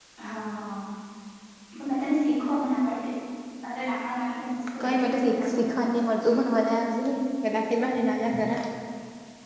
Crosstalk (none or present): present